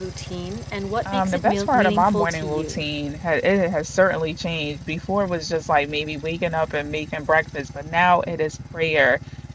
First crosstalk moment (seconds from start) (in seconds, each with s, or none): 1.1 s